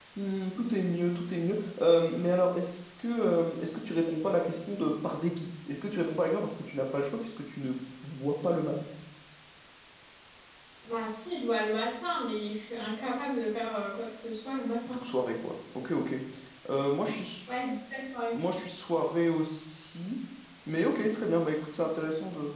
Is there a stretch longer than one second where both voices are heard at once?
No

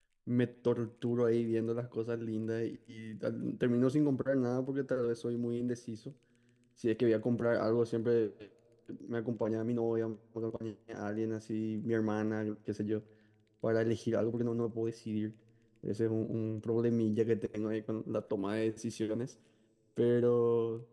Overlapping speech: No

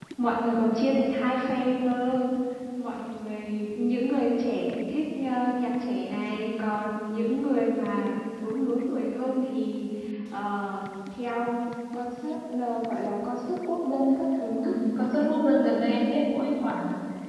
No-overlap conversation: Yes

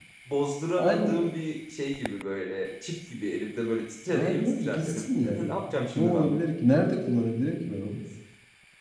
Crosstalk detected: Yes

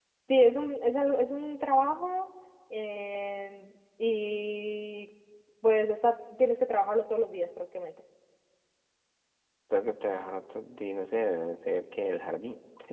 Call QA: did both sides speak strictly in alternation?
Yes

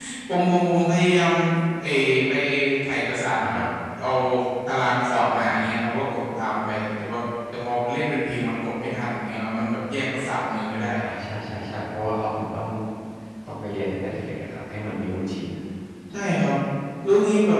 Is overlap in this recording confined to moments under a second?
Yes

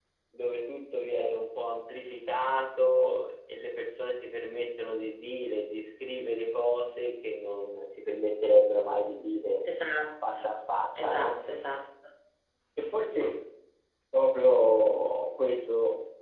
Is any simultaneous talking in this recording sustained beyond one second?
No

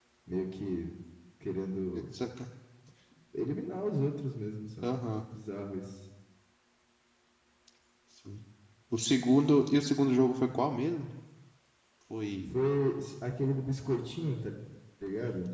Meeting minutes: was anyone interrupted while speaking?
No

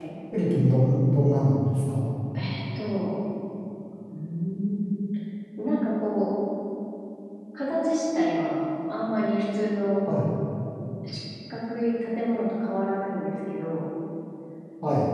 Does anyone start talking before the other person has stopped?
No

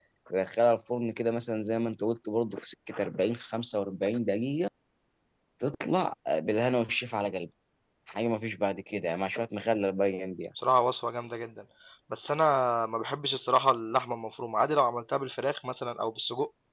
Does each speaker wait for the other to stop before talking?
Yes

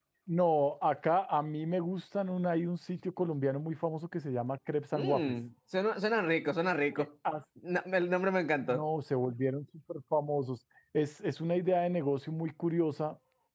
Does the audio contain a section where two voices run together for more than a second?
No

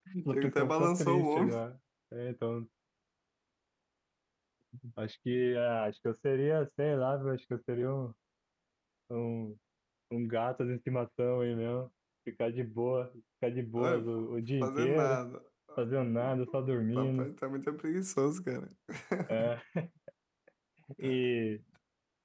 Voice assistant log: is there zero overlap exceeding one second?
No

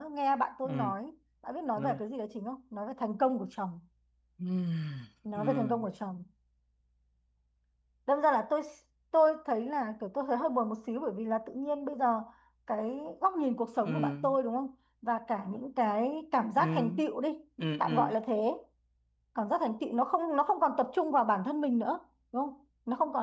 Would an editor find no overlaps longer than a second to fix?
Yes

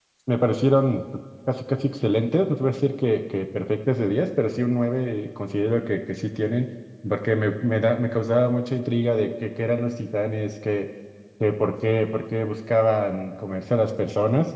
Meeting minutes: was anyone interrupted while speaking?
No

